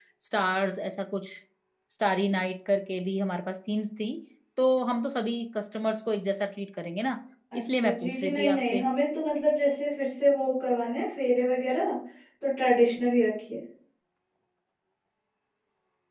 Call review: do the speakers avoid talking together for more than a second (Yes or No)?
No